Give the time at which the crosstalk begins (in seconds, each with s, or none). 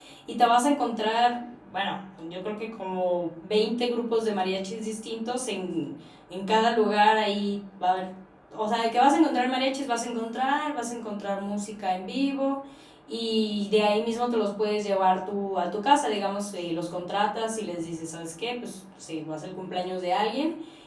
none